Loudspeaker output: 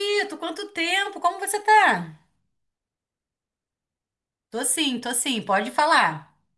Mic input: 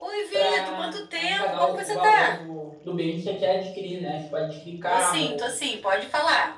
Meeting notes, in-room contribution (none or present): present